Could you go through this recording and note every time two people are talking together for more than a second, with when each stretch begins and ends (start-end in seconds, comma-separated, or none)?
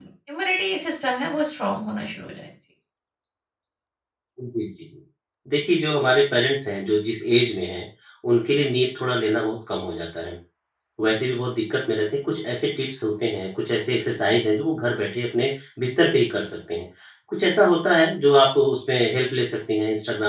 none